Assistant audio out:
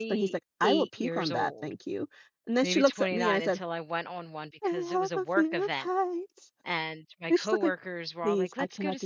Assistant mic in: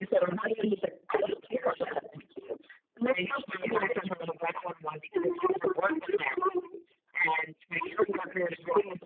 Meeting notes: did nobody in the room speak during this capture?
Yes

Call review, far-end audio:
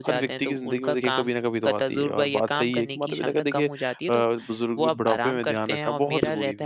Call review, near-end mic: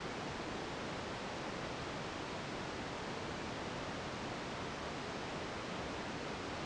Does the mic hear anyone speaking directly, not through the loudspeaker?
No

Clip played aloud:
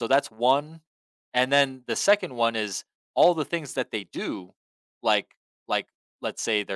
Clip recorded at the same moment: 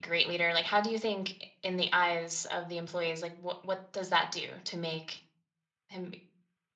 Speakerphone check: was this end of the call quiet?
No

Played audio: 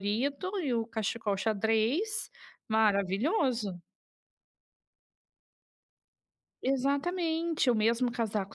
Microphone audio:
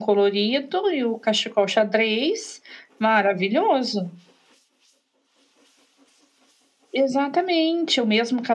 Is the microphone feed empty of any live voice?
Yes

